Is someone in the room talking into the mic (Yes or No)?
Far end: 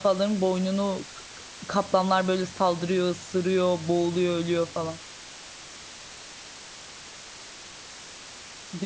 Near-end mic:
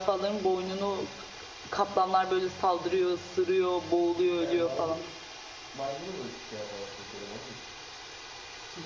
Yes